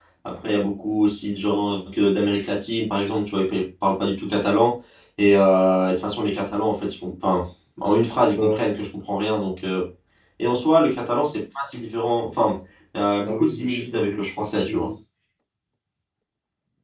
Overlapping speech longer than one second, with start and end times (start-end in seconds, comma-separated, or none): 13.2-14.9